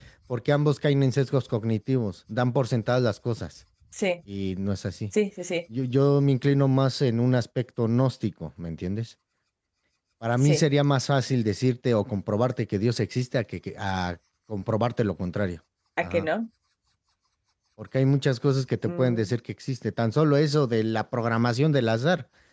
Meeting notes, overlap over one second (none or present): none